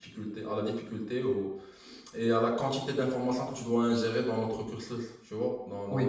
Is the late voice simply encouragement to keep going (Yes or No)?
No